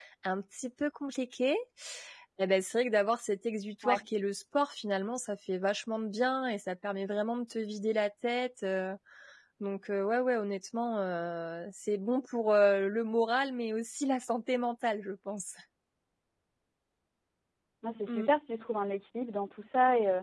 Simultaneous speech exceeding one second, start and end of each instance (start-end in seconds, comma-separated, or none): none